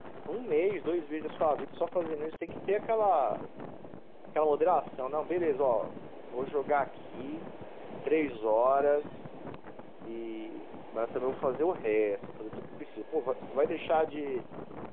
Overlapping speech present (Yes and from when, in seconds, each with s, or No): No